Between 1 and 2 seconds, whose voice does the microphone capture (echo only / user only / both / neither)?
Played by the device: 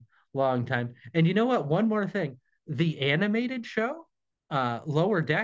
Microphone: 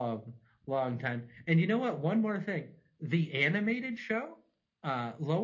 echo only